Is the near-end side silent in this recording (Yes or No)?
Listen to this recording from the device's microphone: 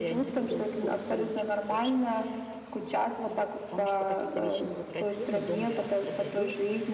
No